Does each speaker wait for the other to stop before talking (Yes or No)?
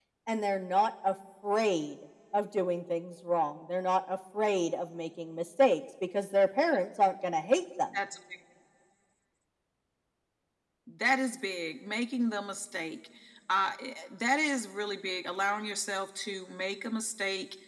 Yes